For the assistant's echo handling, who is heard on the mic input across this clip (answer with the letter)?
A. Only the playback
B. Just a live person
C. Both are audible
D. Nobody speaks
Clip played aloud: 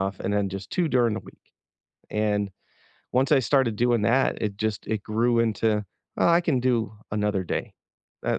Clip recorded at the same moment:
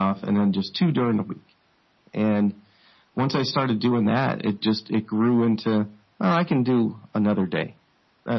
A